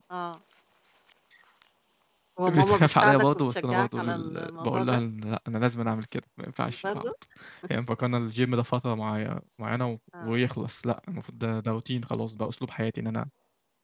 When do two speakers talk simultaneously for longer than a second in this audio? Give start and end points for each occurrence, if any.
2.5-5.0

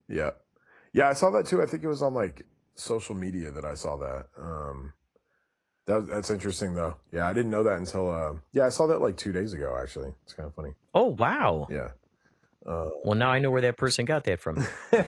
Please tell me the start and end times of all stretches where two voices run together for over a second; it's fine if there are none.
none

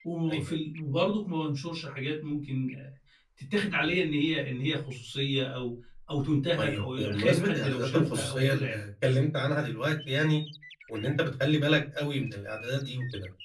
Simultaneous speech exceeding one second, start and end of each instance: 6.6-8.8

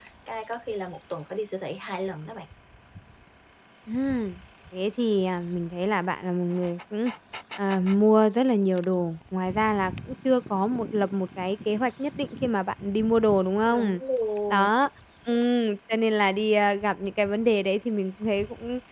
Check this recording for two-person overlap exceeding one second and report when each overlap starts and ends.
none

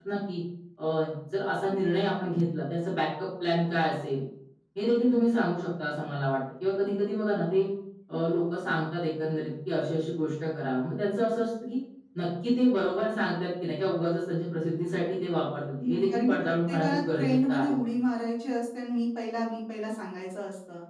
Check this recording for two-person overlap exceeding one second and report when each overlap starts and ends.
15.8-17.7

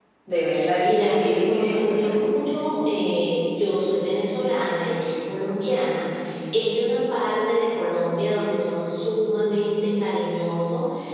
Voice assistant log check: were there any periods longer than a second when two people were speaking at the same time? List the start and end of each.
0.8-2.2

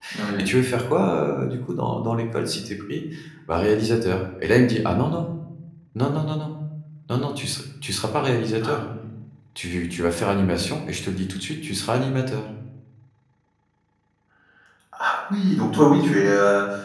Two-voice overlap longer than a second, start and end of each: none

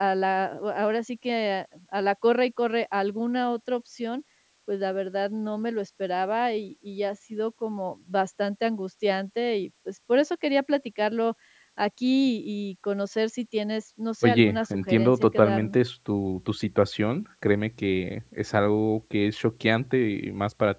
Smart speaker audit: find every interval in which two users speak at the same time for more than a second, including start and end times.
14.2-15.8

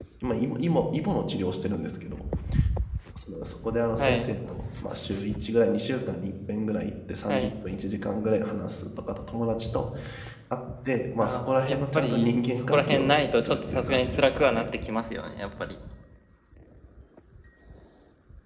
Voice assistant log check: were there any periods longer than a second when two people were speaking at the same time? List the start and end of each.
11.2-14.7

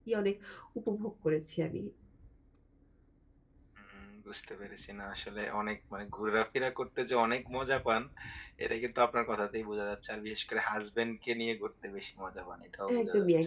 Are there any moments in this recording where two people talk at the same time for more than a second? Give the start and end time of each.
none

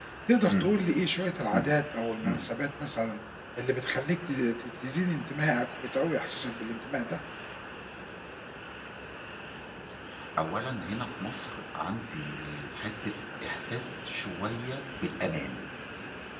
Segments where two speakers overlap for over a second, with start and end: none

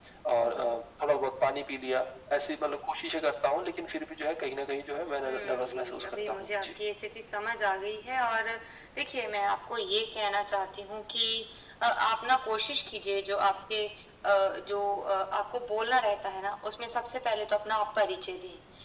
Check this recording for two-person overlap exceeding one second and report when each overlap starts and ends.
5.2-6.7

